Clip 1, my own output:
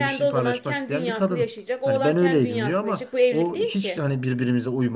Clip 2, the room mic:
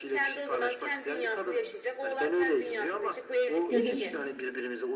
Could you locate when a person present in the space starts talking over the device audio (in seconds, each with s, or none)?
3.7 s